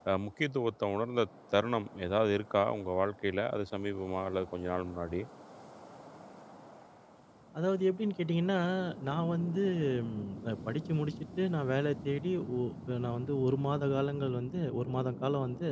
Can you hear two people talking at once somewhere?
No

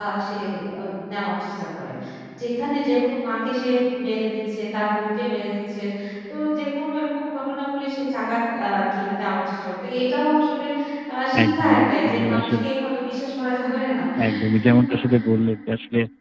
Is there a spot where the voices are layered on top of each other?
Yes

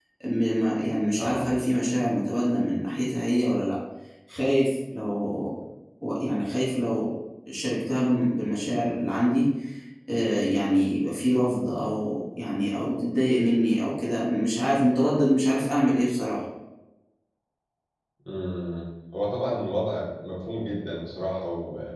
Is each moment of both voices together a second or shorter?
Yes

